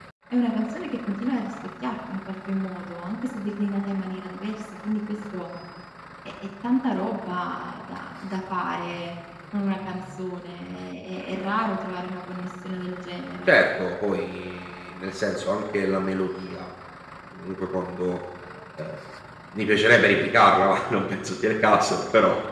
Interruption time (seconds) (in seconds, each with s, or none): none